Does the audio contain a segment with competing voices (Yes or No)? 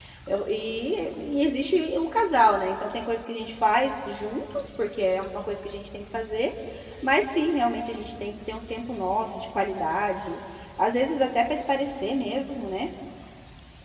No